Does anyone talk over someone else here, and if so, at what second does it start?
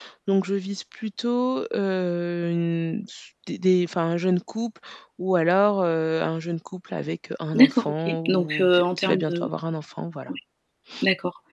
7.5 s

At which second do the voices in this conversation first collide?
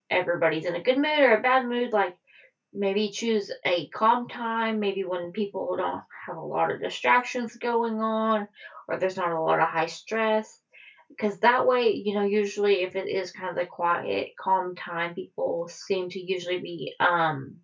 none

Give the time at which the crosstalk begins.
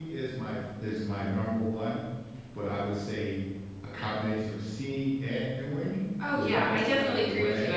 6.2 s

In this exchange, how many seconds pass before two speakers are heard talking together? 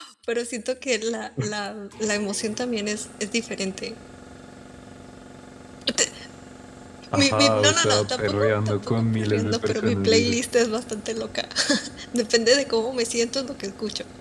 7.1 s

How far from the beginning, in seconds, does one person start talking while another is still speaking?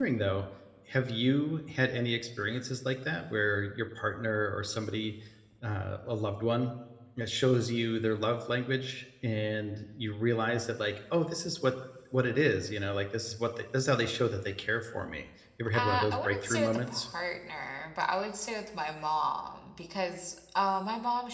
15.7 s

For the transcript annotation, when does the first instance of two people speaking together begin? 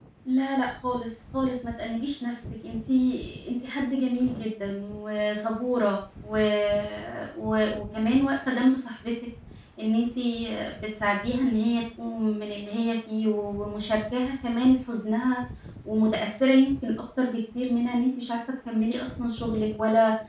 none

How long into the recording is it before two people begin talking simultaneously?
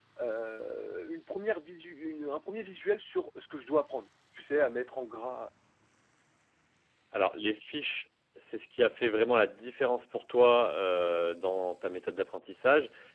none

